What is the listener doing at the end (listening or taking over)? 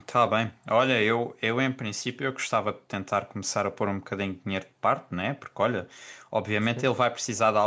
listening